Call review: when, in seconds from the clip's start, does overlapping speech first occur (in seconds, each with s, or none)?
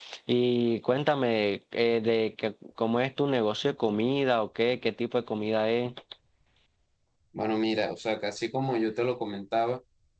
none